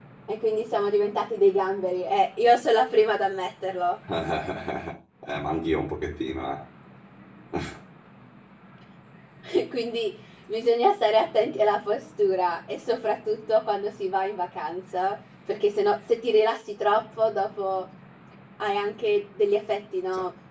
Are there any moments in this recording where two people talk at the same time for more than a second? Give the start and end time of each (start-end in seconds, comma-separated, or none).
none